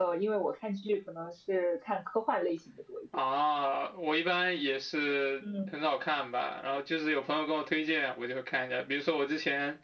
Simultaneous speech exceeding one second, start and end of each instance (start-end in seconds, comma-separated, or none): none